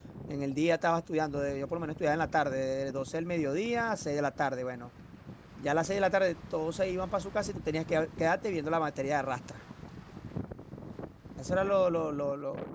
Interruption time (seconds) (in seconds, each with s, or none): none